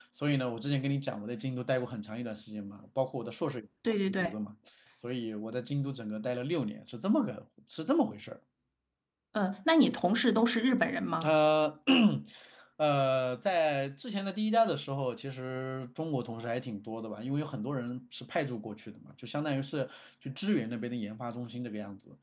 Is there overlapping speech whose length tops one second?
No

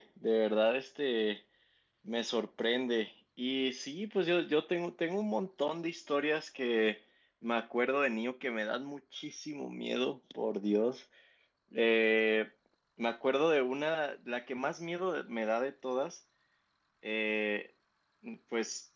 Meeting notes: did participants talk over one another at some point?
No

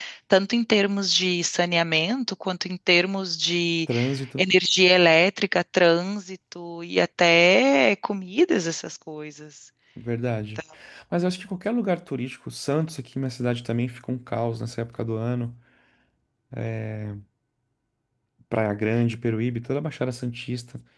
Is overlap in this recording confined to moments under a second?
Yes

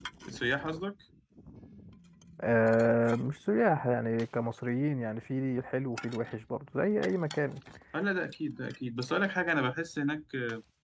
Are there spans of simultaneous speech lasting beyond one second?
No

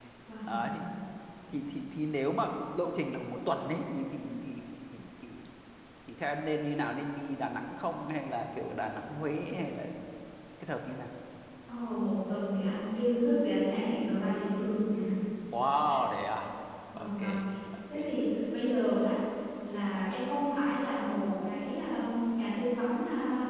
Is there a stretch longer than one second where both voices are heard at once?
No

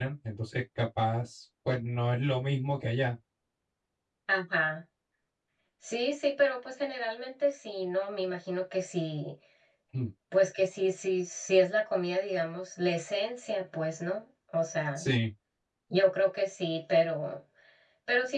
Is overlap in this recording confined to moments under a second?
Yes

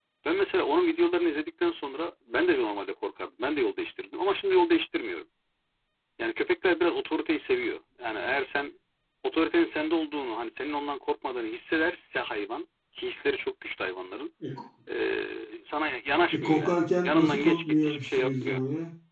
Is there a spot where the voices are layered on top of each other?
Yes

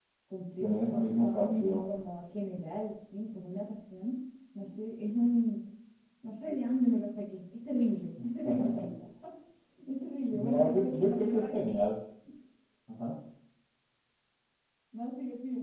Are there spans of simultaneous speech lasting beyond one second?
Yes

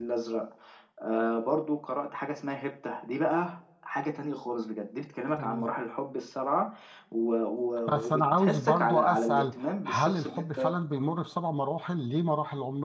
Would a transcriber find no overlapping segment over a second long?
No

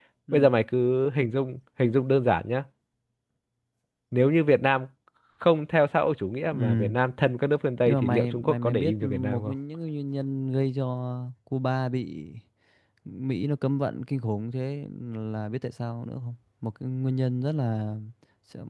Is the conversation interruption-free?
No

